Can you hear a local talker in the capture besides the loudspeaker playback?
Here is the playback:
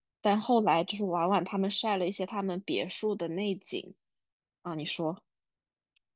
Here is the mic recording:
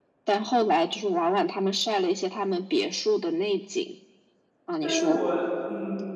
Yes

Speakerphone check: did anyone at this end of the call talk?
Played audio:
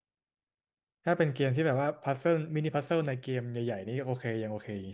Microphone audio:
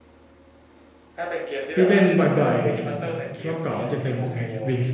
Yes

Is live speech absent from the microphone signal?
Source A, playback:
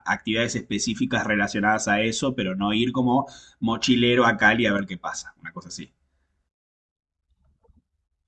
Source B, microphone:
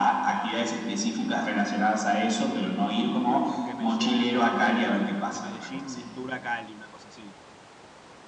No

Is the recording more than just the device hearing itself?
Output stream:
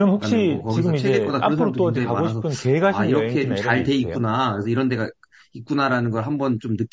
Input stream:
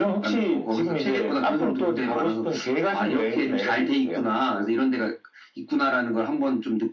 No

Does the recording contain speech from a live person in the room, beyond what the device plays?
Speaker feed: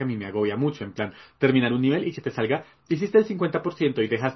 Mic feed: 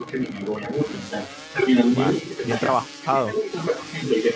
Yes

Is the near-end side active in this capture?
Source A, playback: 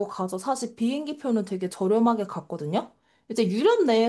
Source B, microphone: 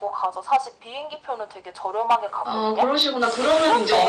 Yes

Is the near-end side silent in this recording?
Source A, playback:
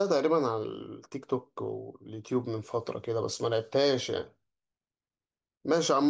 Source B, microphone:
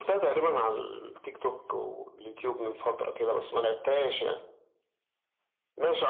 Yes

